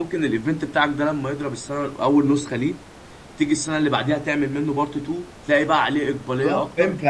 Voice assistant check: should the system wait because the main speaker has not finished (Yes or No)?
No